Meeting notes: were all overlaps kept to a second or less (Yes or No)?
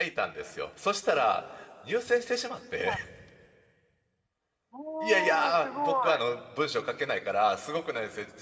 No